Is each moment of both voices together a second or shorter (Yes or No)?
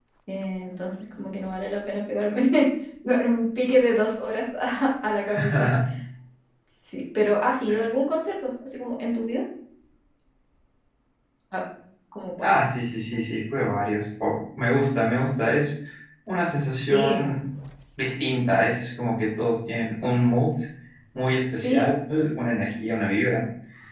Yes